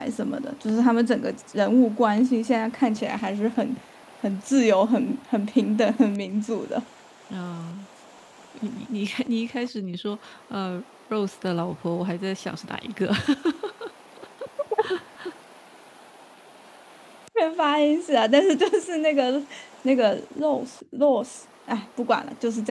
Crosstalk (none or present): none